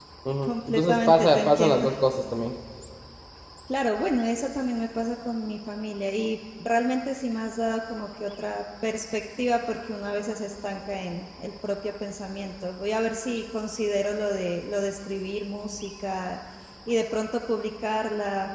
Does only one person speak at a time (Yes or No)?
No